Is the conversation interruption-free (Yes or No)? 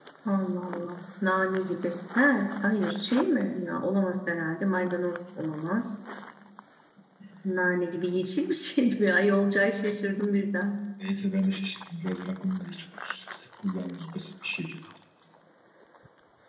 Yes